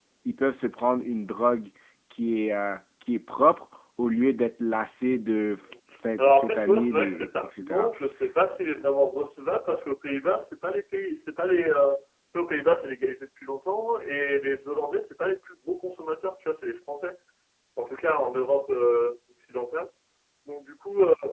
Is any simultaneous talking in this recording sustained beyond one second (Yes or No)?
Yes